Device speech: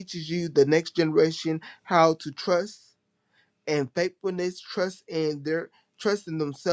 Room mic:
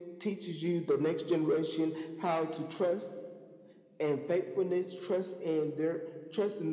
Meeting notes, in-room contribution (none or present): none